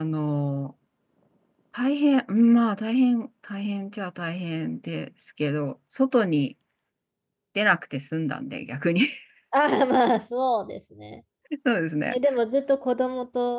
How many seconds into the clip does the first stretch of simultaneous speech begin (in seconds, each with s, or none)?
none